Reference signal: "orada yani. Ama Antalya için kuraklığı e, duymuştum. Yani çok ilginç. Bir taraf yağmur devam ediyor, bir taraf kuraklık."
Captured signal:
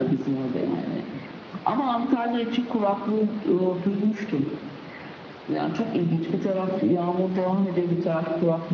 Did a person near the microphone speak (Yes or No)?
No